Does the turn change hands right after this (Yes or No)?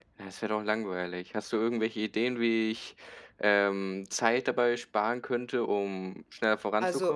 Yes